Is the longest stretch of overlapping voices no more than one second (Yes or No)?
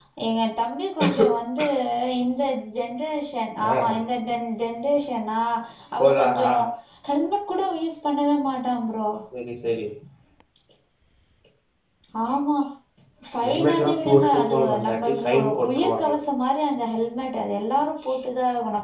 No